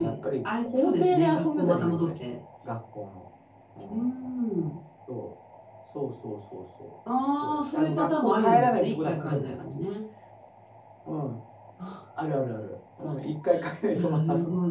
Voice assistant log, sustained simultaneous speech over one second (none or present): present